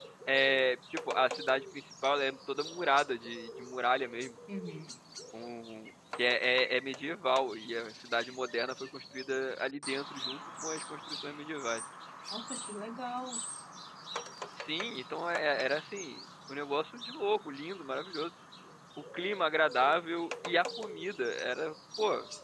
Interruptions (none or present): none